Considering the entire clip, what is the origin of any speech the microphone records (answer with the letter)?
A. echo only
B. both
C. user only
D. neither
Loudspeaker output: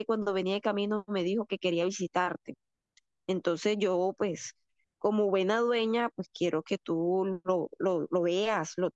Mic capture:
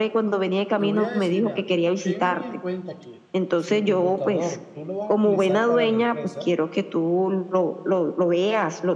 B